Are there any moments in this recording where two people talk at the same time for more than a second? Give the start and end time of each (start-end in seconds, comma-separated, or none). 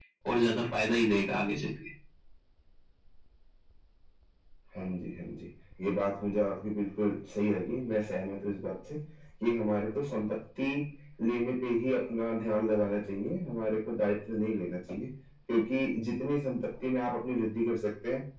none